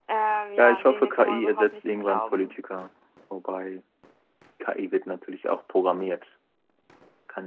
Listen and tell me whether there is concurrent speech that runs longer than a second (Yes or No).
Yes